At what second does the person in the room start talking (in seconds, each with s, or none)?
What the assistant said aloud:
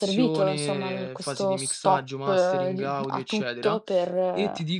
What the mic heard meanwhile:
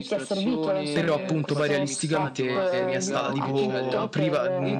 0.9 s